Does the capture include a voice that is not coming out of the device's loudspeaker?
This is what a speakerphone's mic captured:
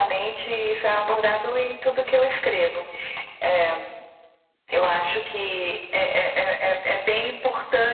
No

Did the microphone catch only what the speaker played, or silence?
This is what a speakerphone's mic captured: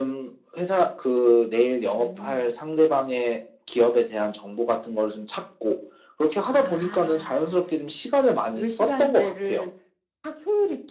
Yes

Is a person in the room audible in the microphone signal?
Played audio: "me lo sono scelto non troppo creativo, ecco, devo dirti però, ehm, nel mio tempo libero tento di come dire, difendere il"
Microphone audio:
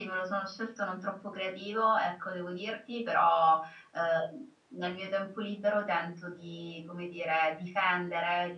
No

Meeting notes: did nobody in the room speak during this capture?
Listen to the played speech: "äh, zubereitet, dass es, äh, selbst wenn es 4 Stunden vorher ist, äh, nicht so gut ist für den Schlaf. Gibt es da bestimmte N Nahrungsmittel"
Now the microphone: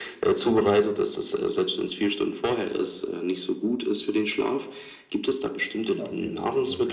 No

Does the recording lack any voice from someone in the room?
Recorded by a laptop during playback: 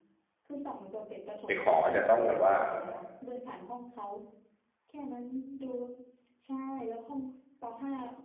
No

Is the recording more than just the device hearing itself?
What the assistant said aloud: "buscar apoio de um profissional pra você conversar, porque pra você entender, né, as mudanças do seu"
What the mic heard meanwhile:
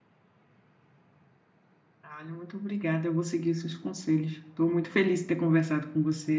Yes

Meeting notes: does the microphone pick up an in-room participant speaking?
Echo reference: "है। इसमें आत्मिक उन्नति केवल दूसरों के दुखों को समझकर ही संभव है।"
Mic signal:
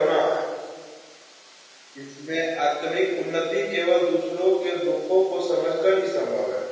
No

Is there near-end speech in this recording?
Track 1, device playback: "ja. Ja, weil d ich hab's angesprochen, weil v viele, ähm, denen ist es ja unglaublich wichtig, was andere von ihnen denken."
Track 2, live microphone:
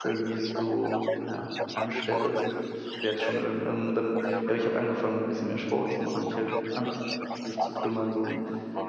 Yes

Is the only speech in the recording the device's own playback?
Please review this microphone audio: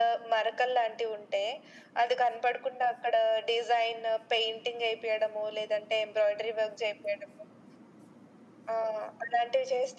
Yes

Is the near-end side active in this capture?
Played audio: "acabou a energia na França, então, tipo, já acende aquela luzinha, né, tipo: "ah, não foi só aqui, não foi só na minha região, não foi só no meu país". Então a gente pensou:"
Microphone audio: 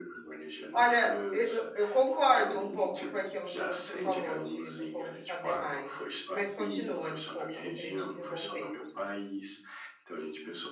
Yes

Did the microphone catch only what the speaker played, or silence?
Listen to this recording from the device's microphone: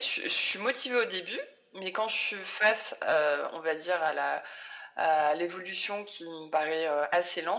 Yes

